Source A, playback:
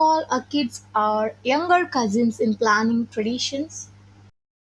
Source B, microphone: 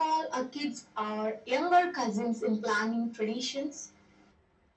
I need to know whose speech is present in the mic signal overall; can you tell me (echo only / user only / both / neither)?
echo only